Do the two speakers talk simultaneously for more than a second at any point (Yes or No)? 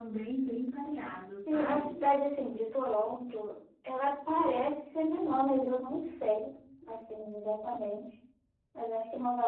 No